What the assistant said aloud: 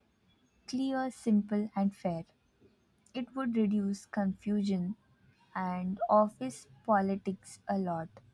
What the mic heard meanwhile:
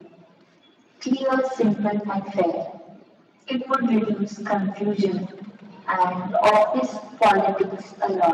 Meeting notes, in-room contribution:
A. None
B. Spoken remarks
A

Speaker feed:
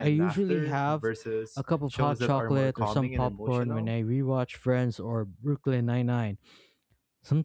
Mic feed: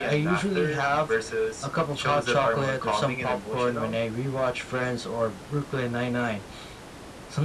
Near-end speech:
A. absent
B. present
A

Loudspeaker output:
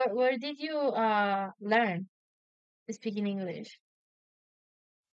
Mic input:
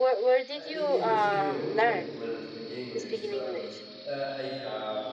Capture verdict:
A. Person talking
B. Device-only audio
A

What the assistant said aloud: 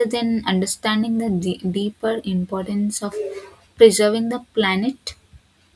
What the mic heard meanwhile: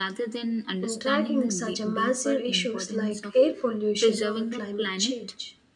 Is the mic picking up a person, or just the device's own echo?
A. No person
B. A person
B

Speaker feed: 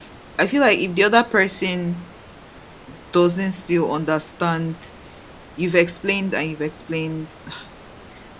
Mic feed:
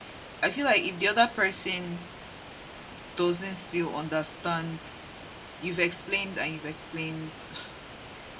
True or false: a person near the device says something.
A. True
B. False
B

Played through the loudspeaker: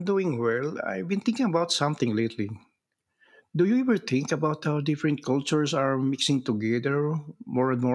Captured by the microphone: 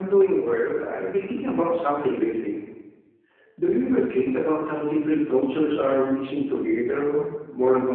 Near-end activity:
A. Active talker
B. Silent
B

